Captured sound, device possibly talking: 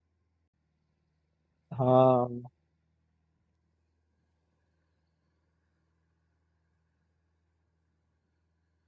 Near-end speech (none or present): present